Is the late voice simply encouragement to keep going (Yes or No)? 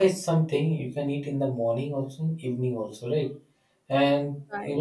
Yes